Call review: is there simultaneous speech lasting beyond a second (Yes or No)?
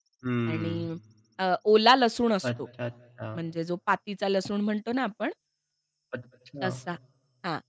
No